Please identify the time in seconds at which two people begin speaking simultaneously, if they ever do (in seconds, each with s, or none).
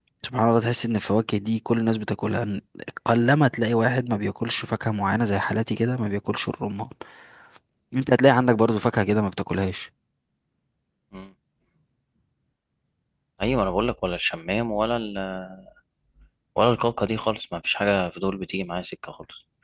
none